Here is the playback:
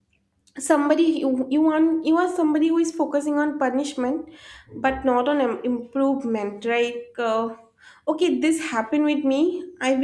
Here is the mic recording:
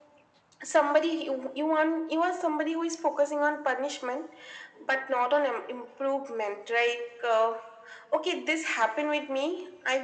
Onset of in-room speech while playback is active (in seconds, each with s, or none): none